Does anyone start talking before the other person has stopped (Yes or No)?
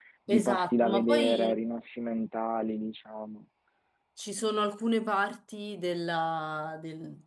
Yes